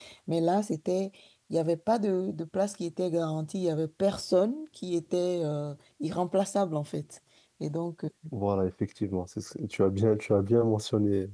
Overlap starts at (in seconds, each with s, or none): none